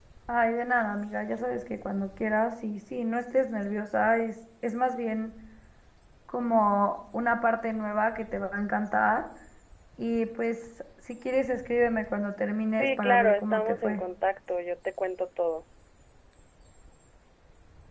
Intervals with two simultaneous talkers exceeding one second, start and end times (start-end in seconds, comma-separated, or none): 12.8-14.0